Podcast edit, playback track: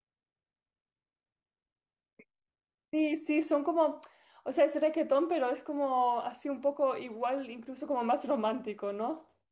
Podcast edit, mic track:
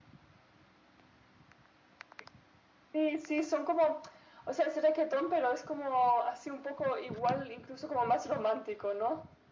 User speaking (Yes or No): No